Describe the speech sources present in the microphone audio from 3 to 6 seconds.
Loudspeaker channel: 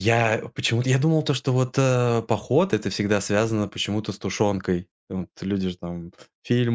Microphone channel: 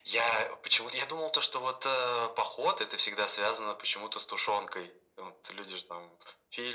echo only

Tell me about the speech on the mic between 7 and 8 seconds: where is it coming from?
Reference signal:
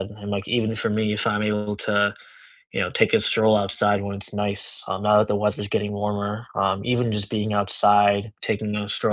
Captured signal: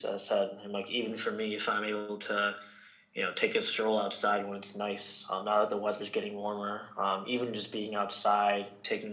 echo only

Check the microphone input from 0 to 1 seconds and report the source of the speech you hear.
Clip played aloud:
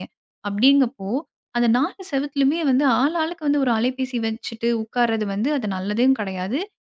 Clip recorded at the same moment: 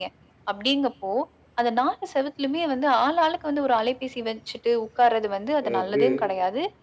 echo only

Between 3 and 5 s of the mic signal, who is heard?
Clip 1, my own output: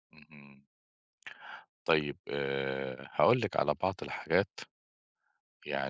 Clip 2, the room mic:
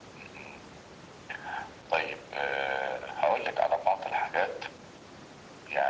echo only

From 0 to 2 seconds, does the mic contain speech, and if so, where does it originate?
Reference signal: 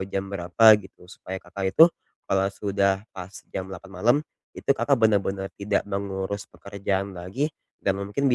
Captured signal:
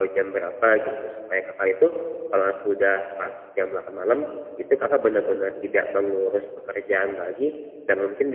echo only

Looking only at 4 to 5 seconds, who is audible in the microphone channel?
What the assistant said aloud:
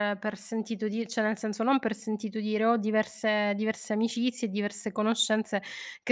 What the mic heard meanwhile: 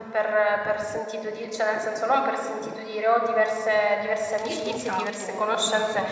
both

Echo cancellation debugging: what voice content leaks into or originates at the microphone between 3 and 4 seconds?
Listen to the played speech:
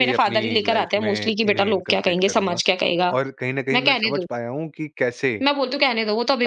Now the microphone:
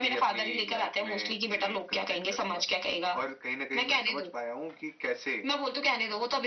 echo only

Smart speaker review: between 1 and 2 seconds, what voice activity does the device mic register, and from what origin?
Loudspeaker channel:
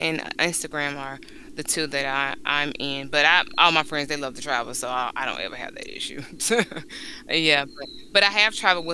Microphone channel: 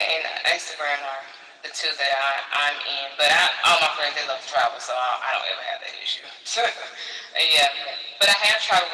echo only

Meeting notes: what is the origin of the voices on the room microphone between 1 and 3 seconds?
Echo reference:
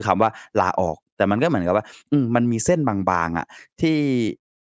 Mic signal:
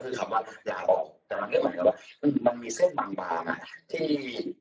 echo only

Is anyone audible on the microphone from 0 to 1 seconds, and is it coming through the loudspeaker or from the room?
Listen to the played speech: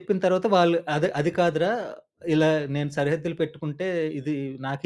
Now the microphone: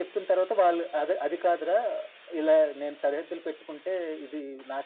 echo only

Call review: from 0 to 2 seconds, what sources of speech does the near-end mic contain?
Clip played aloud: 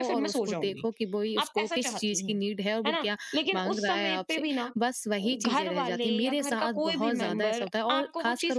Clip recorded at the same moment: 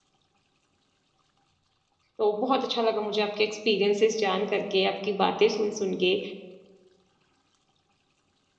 neither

